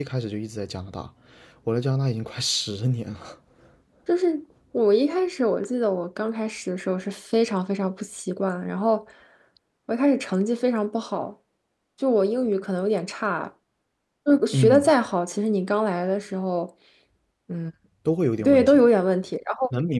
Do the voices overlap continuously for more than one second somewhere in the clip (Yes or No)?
No